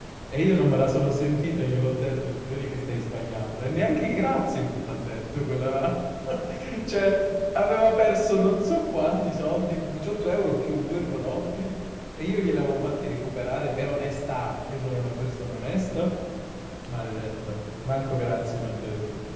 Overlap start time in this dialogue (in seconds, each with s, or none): none